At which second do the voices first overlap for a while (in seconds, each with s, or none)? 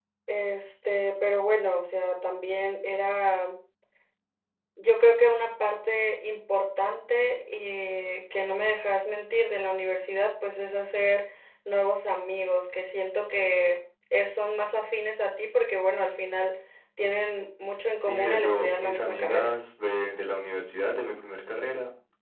18.0 s